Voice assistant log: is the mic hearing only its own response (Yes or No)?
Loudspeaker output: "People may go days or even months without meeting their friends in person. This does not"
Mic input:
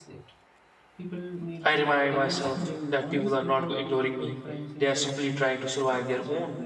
No